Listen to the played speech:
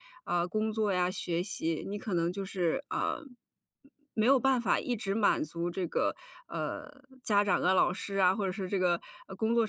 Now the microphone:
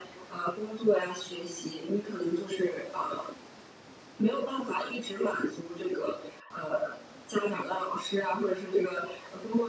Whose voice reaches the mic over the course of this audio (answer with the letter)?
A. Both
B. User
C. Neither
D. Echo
D